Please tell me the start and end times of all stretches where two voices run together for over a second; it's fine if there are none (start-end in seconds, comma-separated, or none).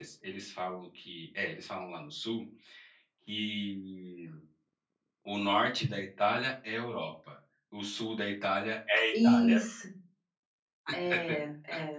none